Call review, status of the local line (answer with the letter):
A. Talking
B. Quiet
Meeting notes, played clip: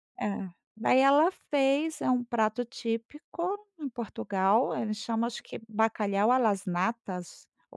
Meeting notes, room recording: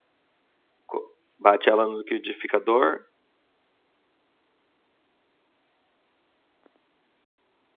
A